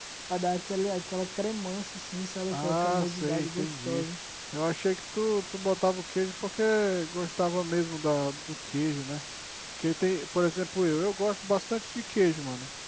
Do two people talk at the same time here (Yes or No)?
Yes